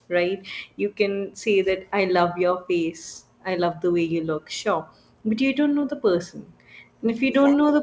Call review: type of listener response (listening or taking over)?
listening